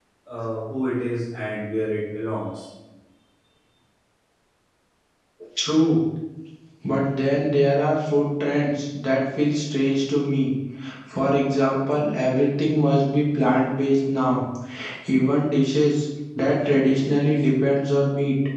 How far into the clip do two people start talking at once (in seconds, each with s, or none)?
none